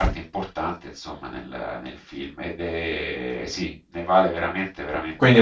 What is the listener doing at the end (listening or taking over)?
taking over